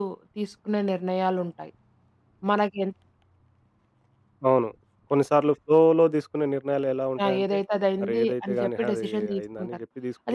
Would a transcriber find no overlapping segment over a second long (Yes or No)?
No